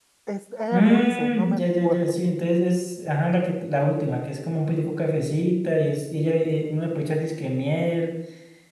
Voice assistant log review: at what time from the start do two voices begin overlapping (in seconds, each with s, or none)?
0.7 s